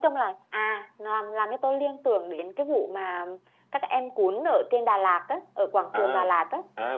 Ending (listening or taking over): taking over